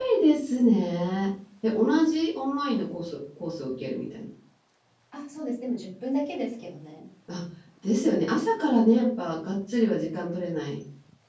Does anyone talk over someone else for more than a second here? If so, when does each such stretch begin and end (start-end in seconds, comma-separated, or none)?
none